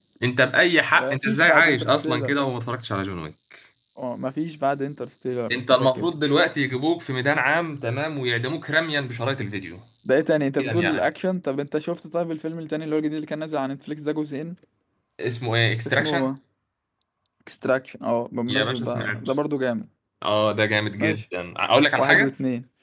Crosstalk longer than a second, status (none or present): present